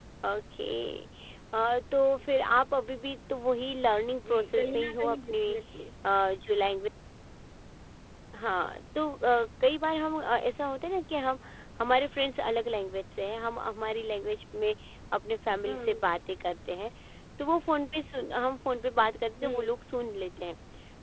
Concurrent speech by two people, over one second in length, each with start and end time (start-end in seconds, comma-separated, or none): 4.3-5.5